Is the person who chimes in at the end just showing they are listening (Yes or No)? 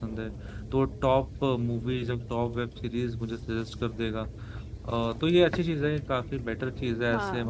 Yes